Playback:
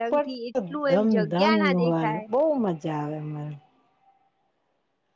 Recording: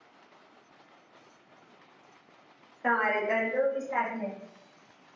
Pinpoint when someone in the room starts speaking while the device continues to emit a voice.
2.8 s

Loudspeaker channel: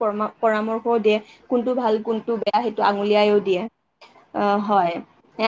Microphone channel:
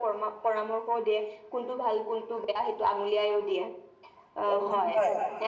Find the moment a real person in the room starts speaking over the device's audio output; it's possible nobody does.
4.5 s

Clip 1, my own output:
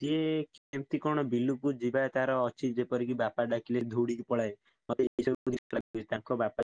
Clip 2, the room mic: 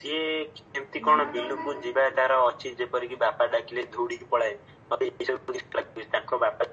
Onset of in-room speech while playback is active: 1.0 s

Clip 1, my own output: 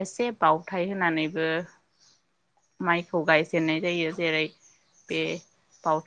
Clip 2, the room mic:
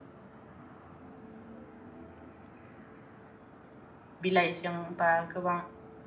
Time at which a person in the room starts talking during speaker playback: 4.3 s

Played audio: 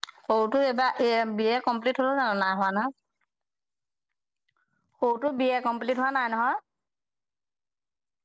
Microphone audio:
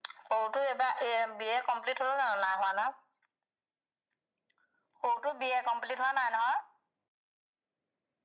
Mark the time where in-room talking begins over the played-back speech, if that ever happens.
none

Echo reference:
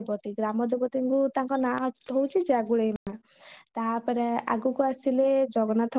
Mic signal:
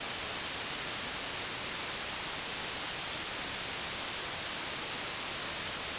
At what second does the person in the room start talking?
none

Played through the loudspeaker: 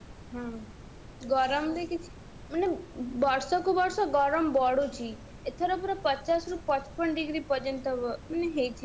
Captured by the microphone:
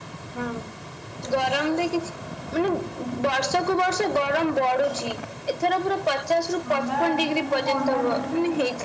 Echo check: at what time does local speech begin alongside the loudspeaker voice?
6.7 s

